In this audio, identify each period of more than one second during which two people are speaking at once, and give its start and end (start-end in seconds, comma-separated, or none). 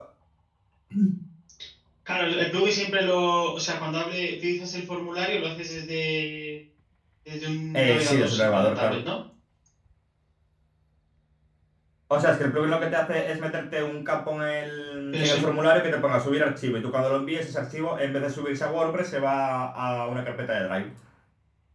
7.7-9.0